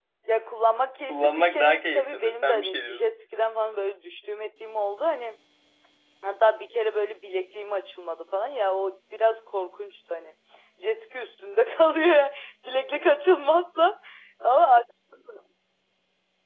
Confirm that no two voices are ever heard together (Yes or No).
No